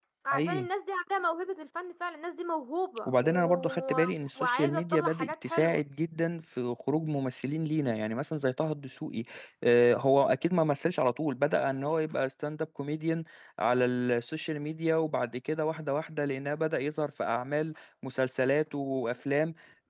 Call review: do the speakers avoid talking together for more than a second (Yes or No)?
No